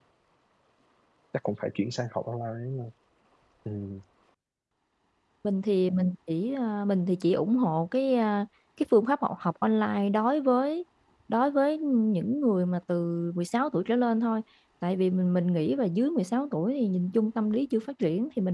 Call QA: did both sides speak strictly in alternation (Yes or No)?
Yes